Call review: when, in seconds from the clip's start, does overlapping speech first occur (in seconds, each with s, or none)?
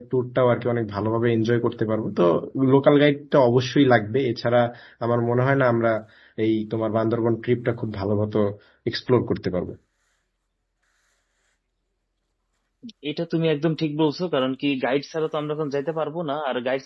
none